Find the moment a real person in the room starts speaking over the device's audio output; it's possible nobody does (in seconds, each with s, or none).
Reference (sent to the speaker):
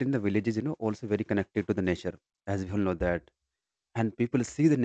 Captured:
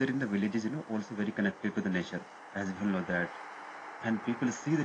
none